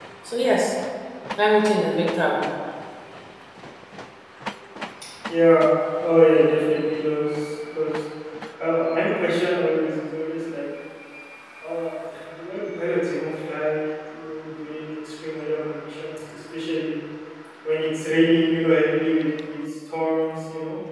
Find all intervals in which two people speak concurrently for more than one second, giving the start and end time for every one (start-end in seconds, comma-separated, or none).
none